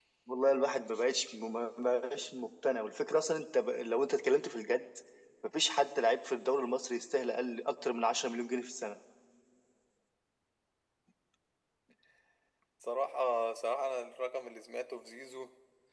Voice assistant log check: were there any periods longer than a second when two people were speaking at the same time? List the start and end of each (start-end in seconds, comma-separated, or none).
none